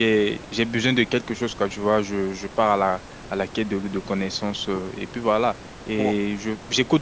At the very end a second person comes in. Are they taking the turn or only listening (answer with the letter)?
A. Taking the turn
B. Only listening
B